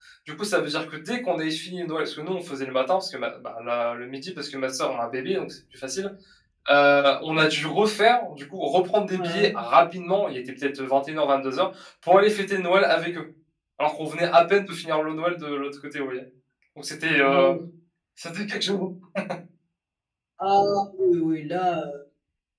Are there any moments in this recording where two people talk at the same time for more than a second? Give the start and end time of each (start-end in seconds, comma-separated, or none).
none